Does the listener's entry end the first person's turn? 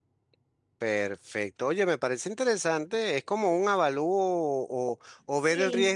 No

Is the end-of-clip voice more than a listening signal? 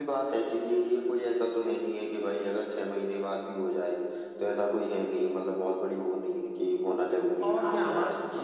Yes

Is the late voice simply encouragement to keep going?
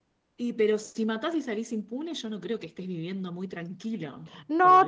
No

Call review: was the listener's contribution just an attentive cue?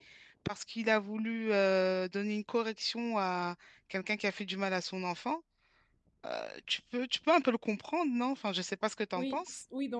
No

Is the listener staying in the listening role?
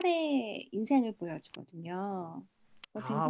No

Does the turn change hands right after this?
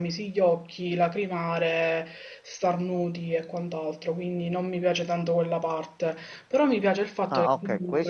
Yes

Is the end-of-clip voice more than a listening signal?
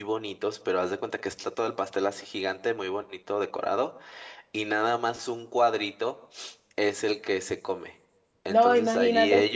No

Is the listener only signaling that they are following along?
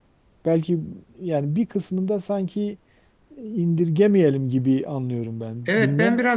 No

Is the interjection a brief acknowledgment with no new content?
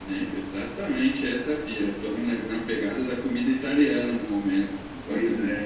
Yes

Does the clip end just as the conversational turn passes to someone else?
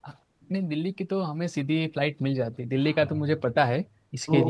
Yes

